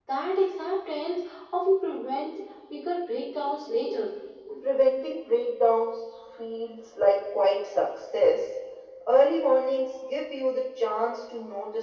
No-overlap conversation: Yes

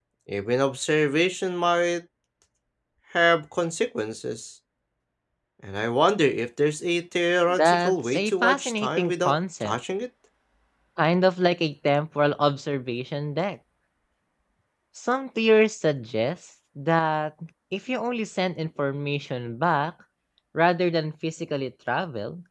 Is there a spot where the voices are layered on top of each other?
Yes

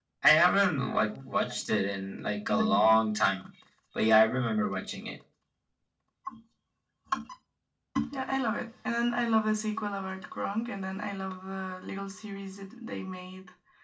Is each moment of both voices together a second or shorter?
Yes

